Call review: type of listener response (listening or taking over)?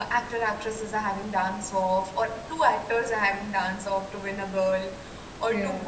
listening